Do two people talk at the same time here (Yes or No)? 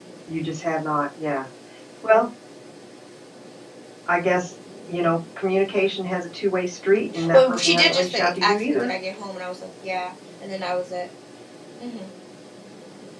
Yes